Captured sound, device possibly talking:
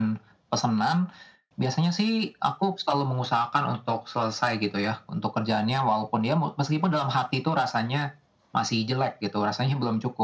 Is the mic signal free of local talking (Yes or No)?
Yes